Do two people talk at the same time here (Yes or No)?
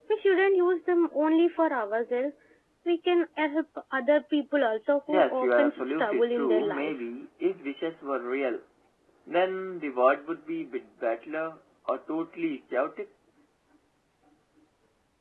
Yes